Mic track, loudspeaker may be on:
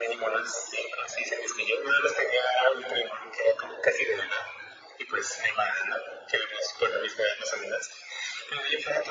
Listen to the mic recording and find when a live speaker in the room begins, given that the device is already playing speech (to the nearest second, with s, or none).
none